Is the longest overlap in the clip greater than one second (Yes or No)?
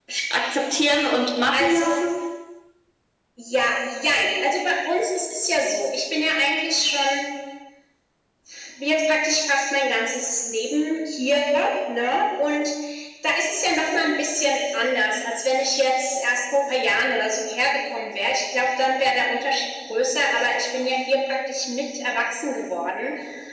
No